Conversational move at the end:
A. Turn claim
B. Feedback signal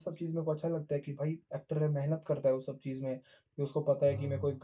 B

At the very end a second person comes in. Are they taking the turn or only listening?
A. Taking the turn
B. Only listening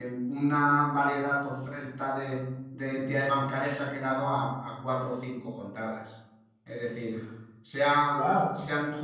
B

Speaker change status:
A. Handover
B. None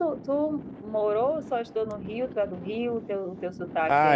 A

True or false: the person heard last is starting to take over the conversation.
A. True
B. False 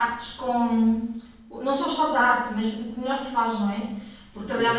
B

